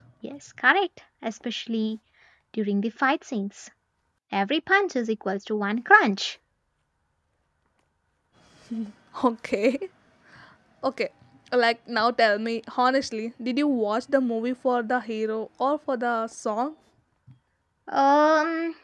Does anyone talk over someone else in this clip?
No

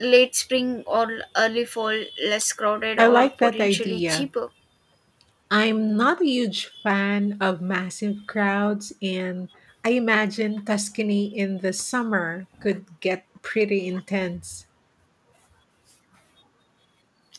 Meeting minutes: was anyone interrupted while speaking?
Yes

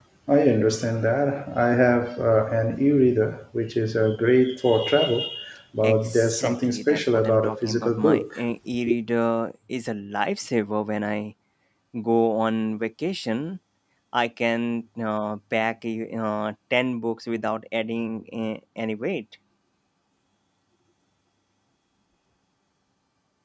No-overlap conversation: No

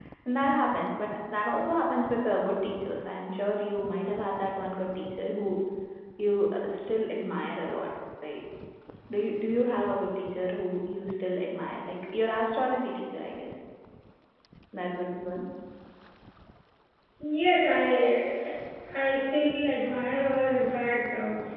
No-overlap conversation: Yes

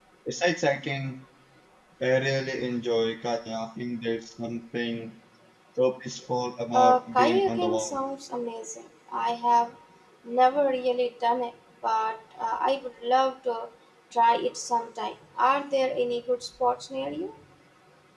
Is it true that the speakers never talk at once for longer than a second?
No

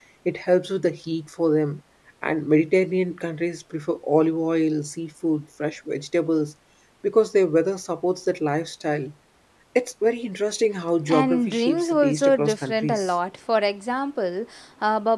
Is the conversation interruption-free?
No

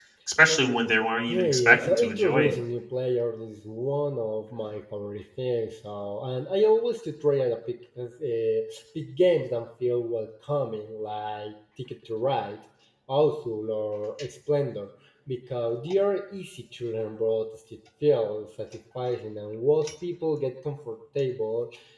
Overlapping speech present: Yes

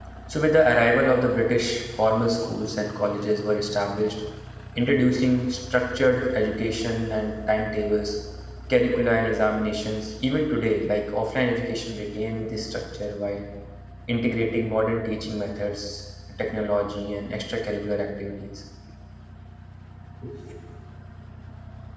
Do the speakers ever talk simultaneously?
No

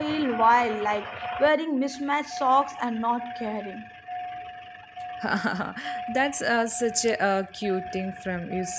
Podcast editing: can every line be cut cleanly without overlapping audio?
Yes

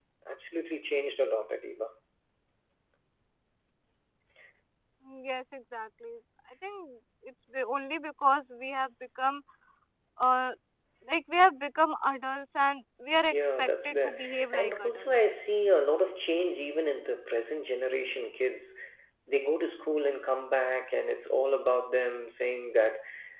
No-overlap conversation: No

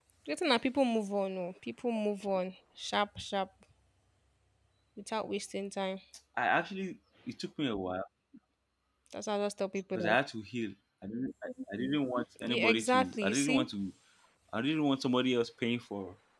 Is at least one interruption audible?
Yes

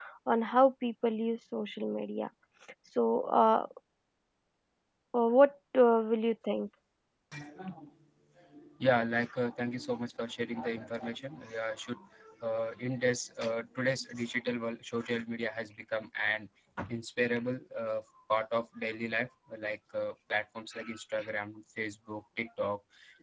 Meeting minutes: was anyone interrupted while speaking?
No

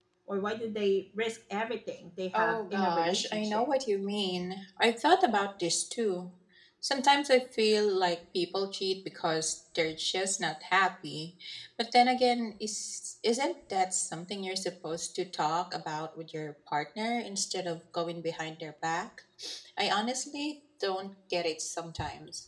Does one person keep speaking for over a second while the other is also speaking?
Yes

